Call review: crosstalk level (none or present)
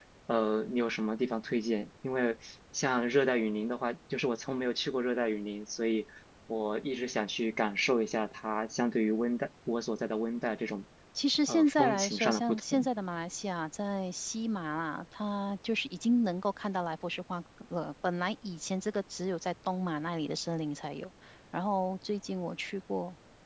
present